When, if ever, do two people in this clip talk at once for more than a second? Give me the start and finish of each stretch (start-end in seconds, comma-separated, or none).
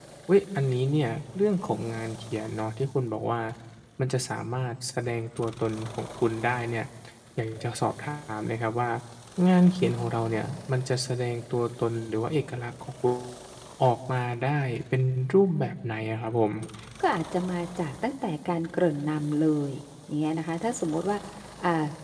none